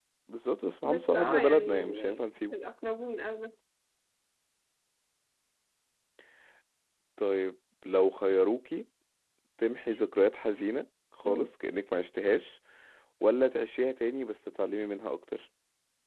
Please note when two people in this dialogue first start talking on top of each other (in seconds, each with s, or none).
0.8 s